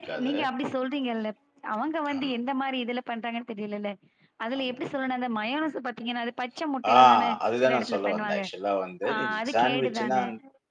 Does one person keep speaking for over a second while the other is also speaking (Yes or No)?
Yes